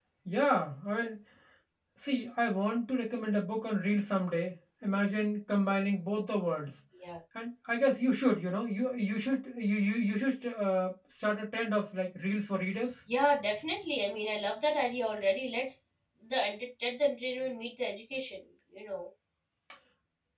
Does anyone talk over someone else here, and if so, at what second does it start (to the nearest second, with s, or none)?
none